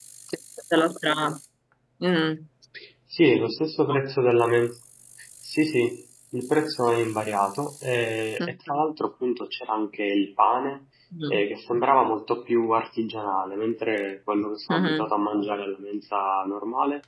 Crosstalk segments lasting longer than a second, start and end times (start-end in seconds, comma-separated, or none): none